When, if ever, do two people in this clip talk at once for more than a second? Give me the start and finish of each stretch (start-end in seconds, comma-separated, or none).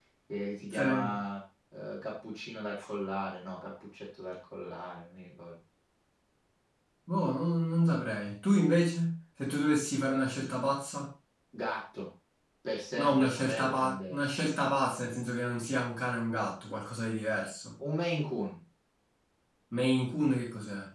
13.0-14.3